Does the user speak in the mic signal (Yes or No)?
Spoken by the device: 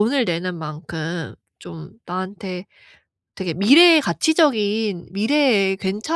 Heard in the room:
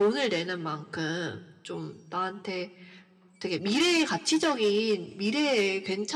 No